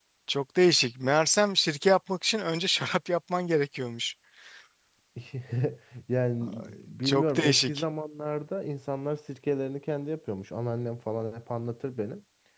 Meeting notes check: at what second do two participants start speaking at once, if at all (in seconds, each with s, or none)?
6.4 s